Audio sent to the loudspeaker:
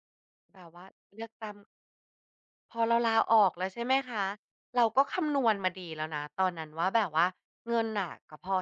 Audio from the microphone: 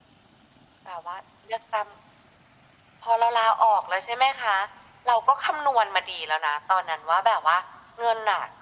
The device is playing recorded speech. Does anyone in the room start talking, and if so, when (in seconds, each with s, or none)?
none